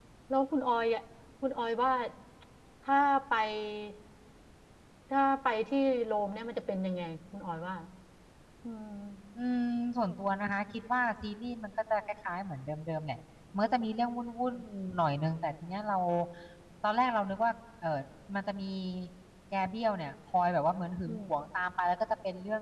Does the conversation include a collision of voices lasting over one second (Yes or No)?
No